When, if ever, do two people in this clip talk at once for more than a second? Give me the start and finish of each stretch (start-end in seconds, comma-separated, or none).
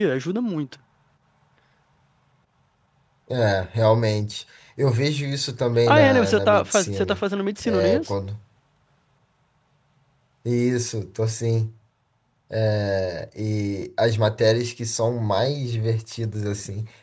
5.9-7.2